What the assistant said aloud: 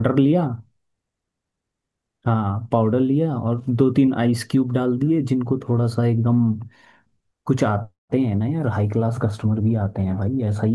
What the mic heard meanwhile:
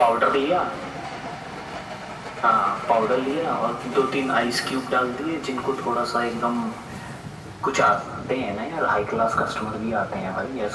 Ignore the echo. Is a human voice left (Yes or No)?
No